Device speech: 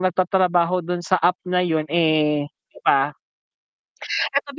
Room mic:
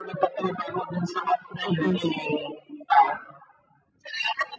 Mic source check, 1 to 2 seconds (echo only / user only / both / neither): both